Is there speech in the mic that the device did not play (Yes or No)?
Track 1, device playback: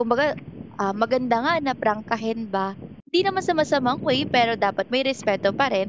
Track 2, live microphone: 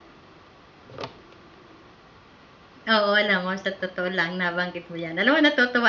Yes